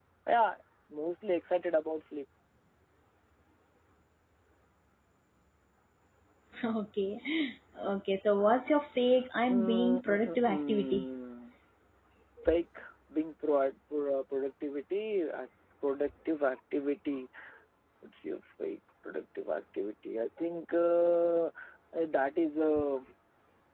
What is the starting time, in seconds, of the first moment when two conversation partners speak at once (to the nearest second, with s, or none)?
9 s